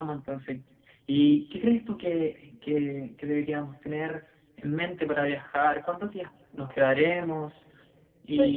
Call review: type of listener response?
taking over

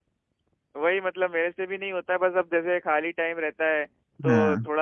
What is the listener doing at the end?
listening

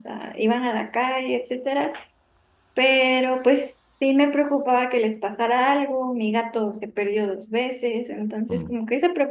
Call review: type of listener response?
listening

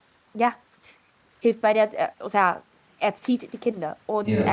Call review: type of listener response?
listening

